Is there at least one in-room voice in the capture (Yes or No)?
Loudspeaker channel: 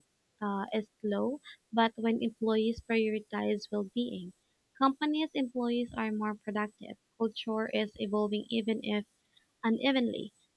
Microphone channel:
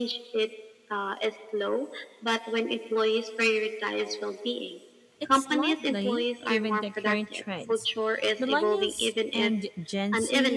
Yes